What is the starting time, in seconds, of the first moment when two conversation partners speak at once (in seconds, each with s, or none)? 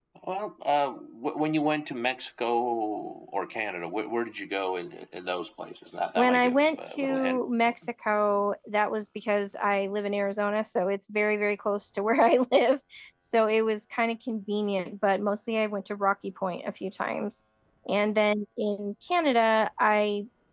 6.2 s